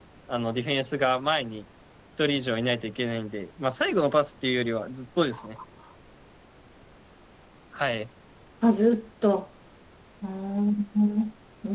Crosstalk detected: No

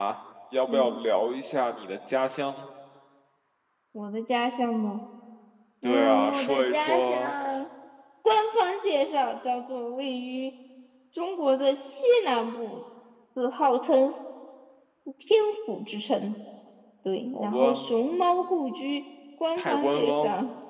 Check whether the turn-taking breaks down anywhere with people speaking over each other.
Yes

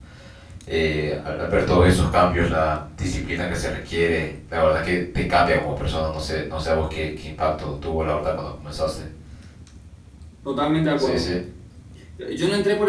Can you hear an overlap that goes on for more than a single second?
No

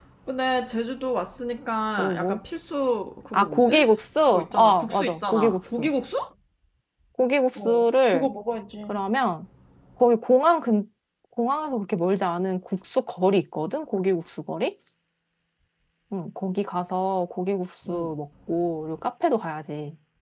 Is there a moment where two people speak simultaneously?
Yes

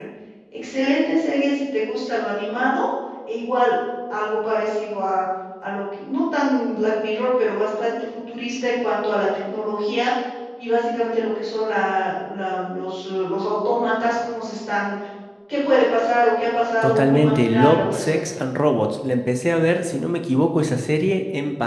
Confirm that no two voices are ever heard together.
No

